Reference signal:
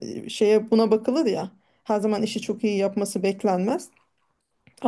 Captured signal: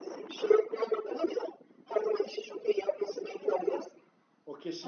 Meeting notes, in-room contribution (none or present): present